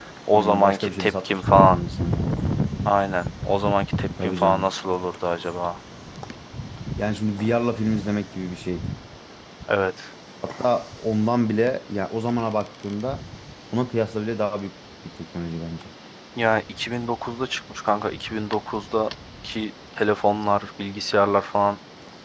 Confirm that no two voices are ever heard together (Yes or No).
No